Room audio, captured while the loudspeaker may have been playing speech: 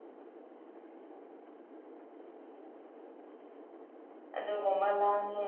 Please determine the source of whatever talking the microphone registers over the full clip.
user only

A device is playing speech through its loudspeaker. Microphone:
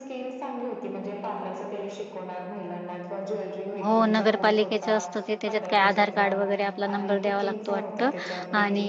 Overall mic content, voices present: both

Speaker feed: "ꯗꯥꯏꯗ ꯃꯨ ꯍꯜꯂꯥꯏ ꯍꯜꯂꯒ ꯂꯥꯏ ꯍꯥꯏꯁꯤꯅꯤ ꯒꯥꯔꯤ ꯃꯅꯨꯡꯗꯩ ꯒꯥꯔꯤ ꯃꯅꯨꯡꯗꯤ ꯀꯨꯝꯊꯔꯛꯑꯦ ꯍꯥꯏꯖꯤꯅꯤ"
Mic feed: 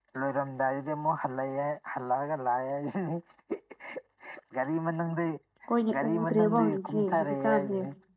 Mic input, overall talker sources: both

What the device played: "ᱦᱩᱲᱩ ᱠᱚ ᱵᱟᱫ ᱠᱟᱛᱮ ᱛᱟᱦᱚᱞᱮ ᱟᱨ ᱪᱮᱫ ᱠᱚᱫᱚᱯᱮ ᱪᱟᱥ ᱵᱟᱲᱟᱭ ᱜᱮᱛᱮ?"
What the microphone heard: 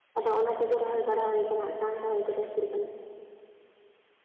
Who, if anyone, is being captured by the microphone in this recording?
user only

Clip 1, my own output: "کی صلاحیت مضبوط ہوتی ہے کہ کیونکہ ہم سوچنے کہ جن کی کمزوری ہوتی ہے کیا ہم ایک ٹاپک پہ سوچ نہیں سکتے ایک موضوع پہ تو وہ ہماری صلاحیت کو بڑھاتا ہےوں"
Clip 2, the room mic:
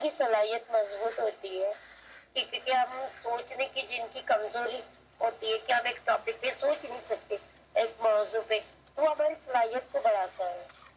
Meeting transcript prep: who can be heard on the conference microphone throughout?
echo only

